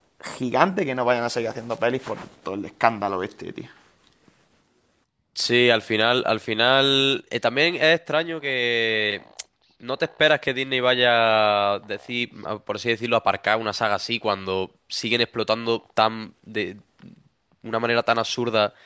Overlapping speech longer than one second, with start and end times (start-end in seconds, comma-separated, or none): none